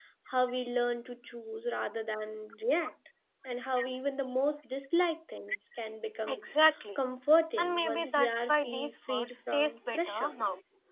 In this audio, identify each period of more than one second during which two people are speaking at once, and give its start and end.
7.6-10.3

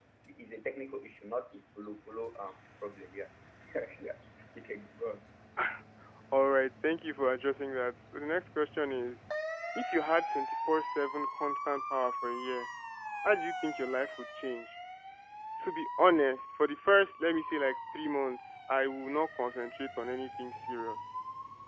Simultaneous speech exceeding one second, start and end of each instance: none

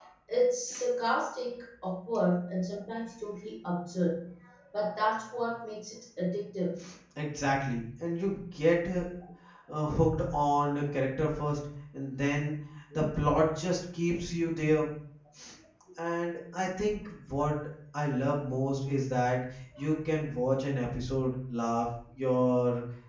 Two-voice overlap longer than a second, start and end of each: none

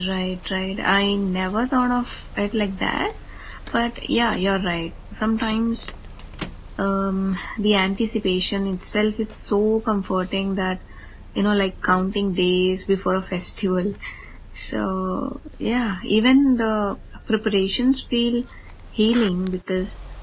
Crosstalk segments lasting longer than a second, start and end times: none

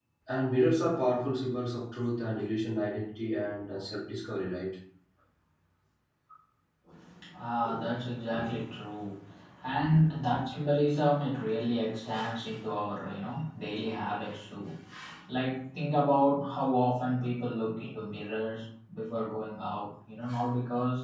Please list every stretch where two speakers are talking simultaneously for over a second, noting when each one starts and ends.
none

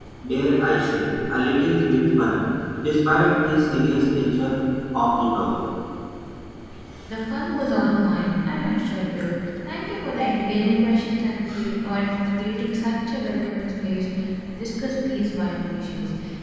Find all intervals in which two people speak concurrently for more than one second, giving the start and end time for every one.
none

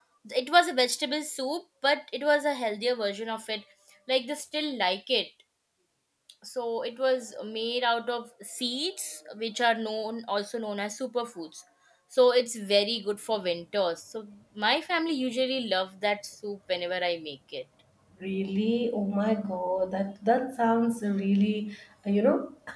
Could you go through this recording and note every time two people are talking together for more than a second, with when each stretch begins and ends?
none

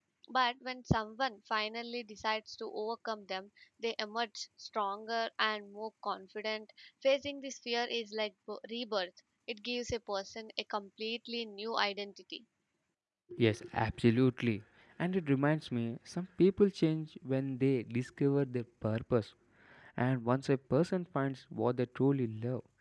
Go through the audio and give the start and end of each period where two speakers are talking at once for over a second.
none

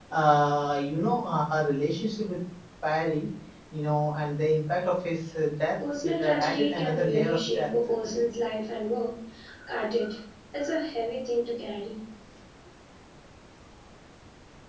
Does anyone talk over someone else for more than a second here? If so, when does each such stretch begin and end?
6.0-7.7

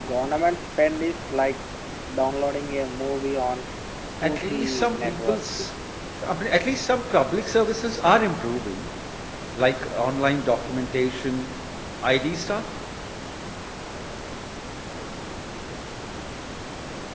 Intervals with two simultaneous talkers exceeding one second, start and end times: 4.2-5.4

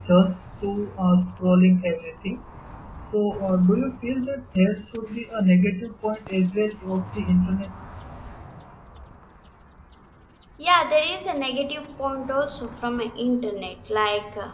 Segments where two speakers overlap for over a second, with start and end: none

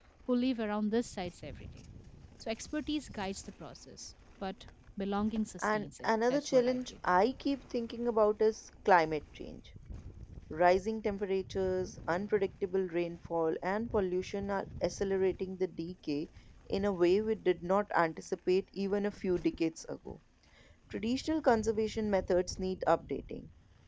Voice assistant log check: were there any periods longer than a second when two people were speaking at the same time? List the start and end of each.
5.6-6.9

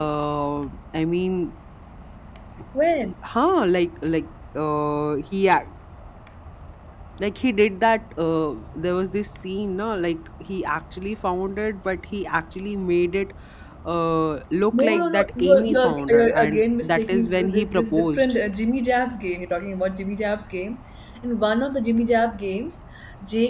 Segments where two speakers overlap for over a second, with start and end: 14.8-18.3

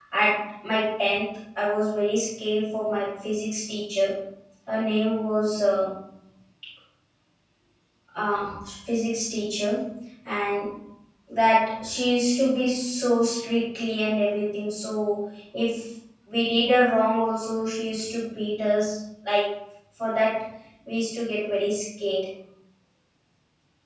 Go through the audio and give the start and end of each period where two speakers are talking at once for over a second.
none

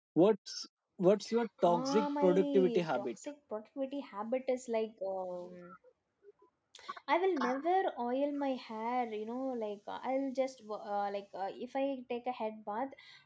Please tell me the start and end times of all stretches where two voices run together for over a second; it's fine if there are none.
1.6-3.1

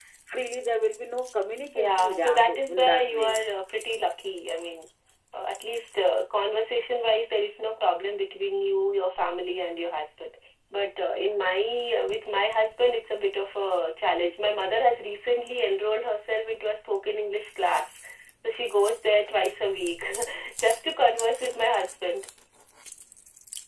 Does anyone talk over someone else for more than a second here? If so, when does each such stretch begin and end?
1.7-3.4

